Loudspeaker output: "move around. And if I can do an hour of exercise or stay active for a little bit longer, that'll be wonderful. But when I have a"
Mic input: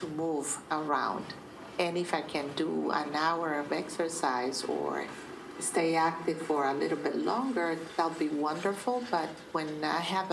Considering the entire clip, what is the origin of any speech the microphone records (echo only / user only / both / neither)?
echo only